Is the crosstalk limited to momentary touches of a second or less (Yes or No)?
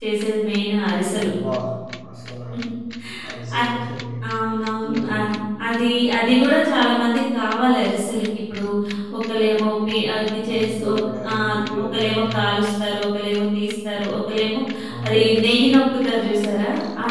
No